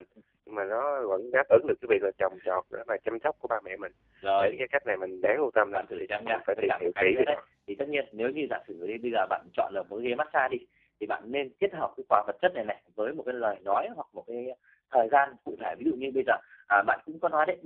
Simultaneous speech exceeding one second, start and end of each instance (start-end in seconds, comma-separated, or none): 5.7-7.4